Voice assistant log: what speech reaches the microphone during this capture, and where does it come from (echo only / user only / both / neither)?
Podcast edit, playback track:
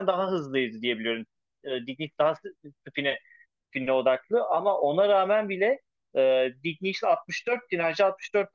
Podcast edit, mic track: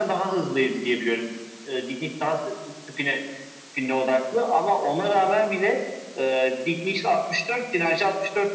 echo only